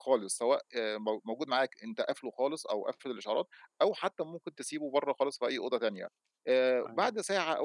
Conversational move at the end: listening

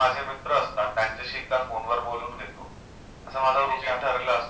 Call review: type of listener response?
listening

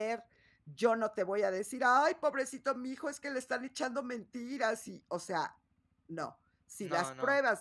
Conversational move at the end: listening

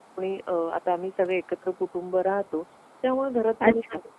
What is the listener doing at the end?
listening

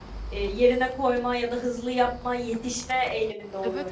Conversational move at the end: taking over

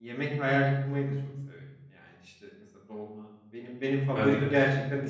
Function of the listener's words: listening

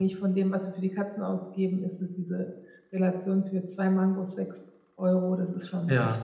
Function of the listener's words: taking over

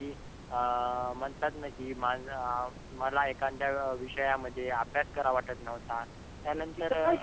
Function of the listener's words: taking over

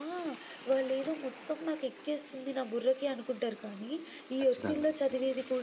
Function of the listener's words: listening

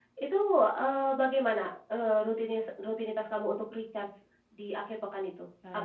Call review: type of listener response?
taking over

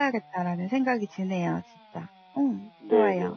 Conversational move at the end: taking over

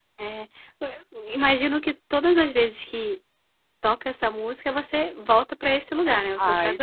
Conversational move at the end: taking over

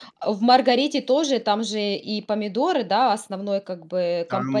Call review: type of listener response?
taking over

